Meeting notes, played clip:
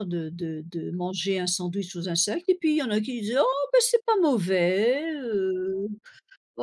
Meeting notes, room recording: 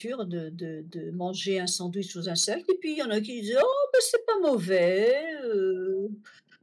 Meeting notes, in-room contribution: none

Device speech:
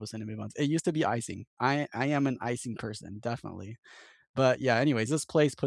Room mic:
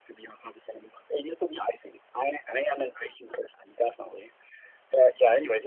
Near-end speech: none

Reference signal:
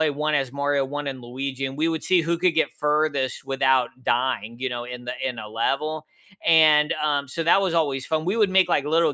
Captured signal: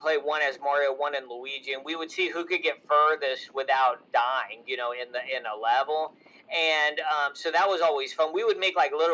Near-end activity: none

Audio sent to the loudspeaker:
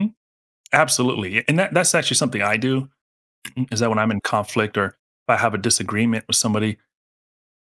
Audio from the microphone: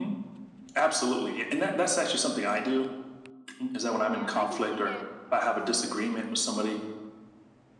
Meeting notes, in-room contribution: present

